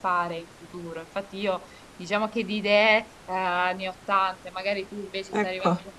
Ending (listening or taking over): listening